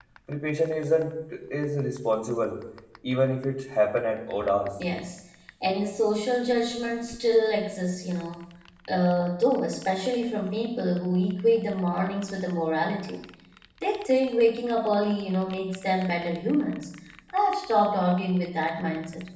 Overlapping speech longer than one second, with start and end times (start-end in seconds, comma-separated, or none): none